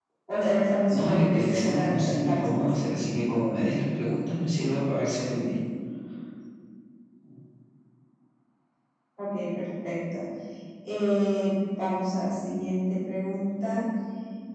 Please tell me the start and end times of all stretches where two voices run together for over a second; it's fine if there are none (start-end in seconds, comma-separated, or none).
0.9-2.9